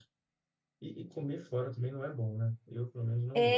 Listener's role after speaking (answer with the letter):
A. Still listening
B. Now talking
B